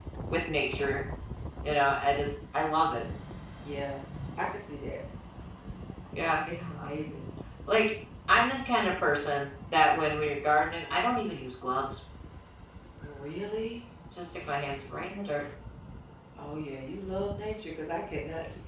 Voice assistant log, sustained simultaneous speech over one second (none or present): none